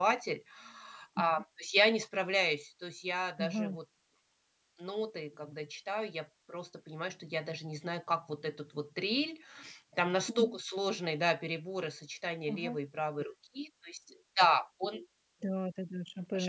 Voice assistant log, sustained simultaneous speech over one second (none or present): none